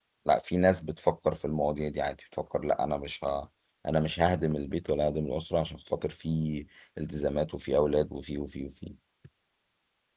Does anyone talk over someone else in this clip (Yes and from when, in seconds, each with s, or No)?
No